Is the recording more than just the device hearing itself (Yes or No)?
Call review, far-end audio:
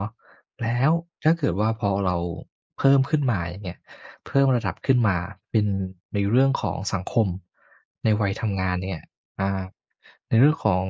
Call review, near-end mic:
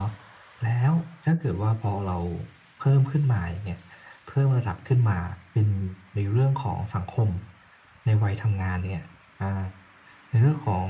No